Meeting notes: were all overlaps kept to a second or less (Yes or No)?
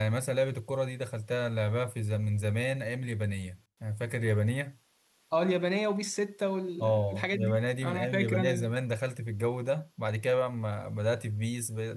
No